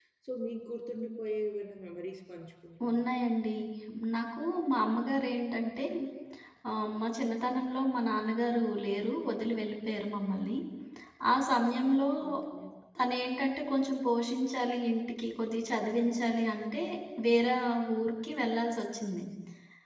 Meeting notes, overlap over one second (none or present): none